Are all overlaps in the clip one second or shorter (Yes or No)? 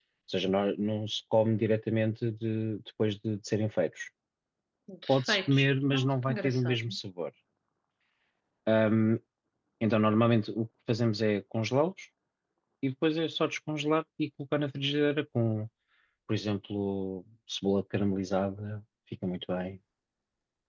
No